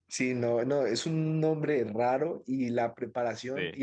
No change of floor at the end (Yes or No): Yes